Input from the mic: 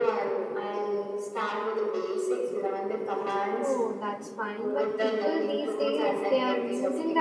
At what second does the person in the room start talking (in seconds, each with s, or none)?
3.6 s